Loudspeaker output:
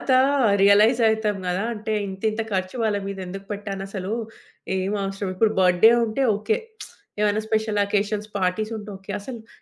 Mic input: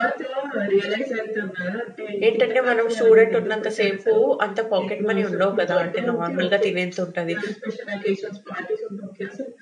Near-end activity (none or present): present